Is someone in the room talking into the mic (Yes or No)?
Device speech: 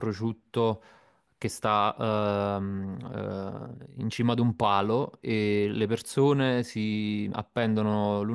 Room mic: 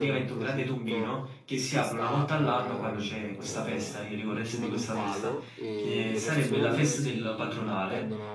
Yes